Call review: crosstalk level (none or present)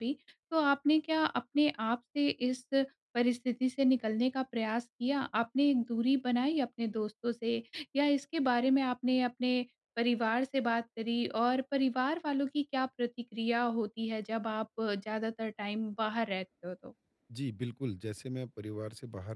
none